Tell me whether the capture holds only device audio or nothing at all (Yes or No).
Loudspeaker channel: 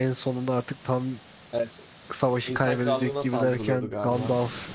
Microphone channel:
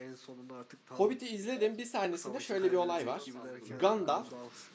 No